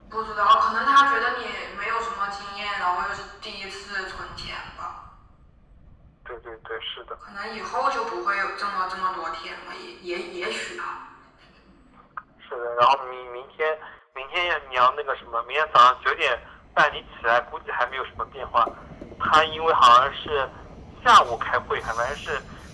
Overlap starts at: none

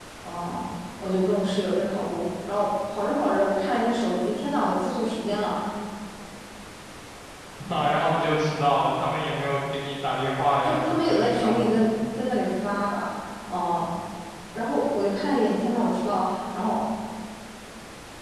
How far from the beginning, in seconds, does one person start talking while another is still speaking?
10.6 s

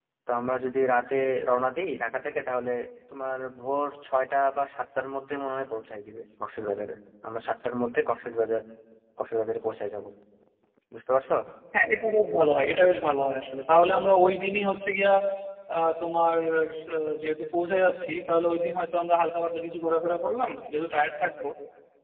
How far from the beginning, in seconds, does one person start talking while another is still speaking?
none

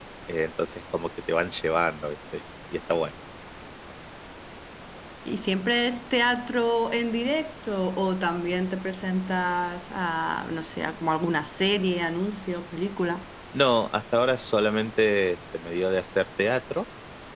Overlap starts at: none

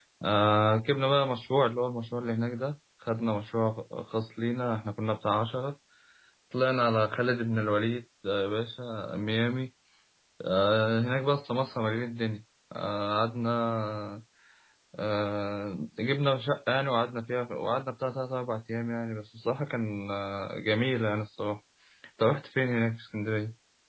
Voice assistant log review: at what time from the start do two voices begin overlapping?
none

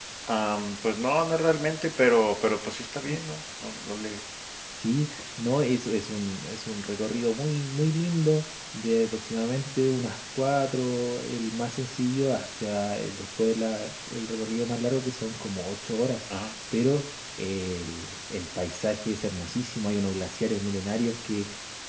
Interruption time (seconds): none

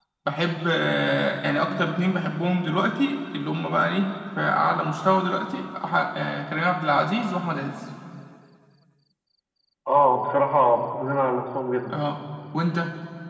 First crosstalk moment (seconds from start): none

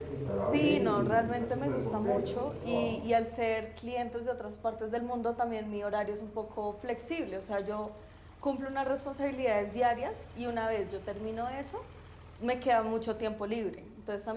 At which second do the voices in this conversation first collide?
0.5 s

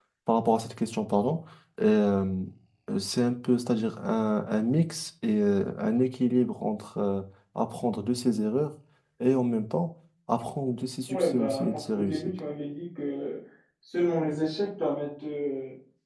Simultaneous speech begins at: 11.1 s

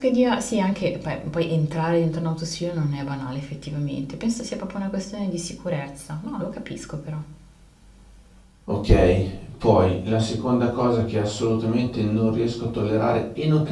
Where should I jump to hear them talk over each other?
none

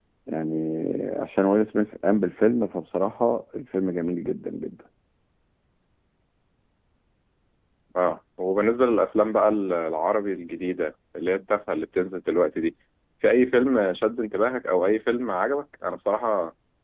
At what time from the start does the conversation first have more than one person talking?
none

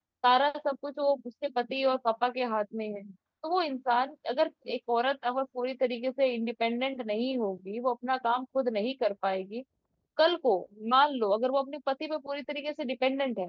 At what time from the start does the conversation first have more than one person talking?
none

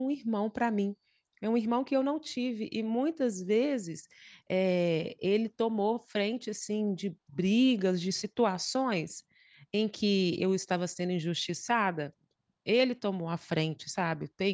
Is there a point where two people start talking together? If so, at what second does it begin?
none

